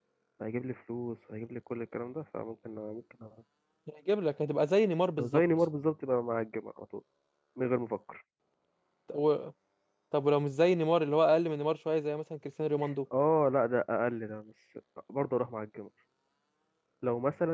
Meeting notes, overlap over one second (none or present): none